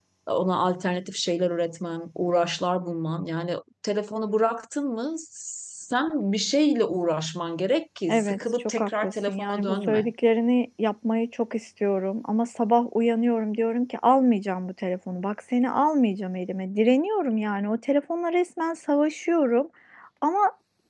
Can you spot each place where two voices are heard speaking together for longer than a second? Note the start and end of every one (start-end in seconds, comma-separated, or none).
8.1-10.1